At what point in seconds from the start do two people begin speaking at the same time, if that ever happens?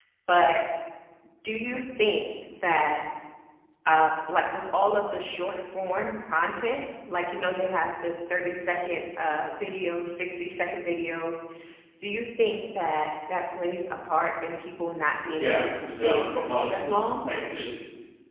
15.4 s

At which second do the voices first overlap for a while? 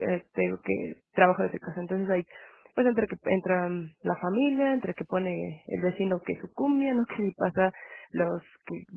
none

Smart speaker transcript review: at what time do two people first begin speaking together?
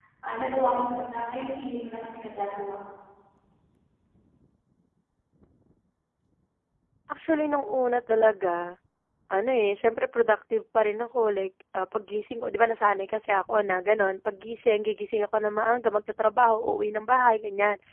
none

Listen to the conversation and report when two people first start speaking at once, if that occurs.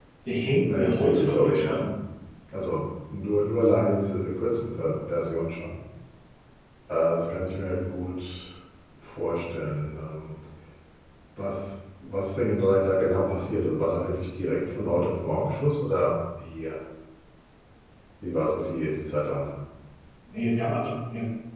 0.7 s

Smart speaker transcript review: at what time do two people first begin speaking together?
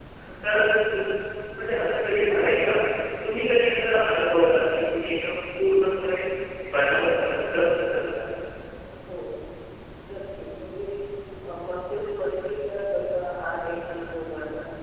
none

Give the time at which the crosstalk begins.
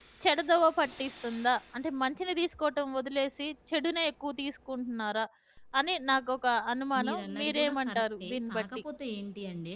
6.9 s

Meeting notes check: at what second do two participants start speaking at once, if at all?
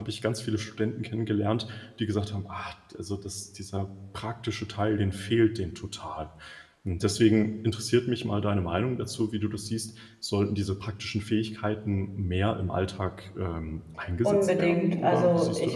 14.2 s

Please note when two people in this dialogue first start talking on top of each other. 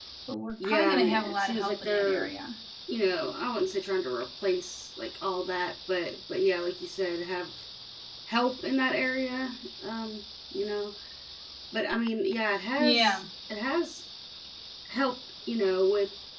0.6 s

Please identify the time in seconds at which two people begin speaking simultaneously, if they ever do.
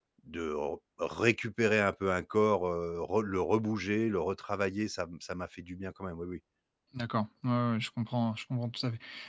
none

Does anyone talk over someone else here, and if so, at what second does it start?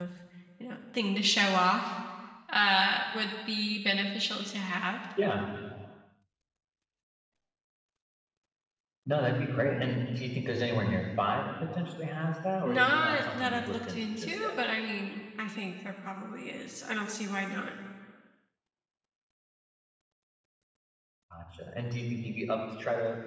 12.6 s

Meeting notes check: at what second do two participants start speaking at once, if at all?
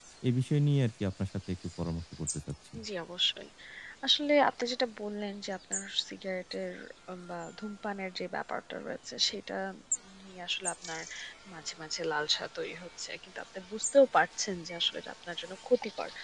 none

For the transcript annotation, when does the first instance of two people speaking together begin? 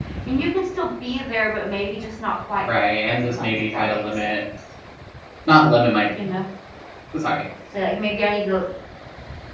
3.1 s

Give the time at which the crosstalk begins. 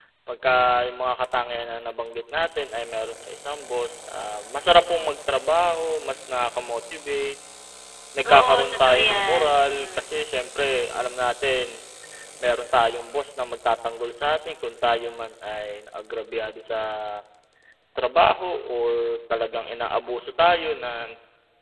8.3 s

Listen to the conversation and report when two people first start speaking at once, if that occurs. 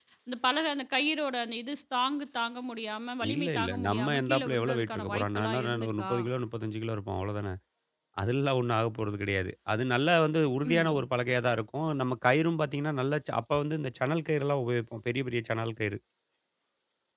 3.3 s

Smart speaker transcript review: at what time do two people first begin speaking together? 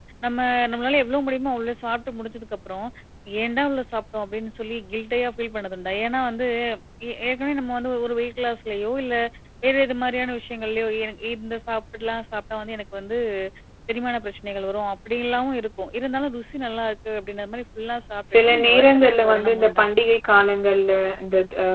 18.2 s

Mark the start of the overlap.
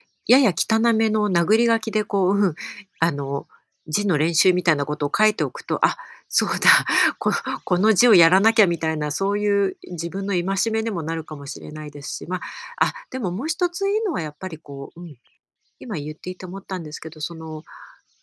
none

